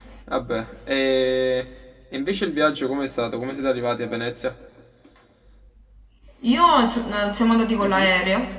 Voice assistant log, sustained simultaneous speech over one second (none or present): none